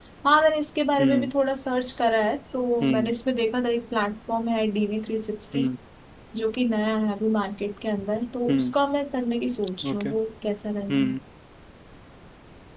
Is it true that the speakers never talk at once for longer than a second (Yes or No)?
Yes